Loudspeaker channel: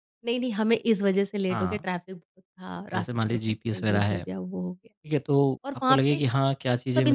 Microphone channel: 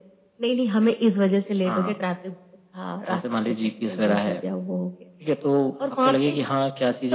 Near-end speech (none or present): none